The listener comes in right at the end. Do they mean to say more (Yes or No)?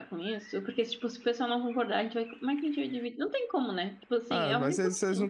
Yes